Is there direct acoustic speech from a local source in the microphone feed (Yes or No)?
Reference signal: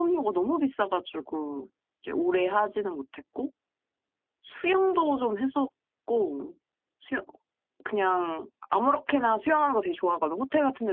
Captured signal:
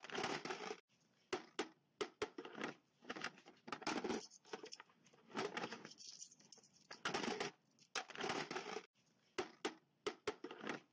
No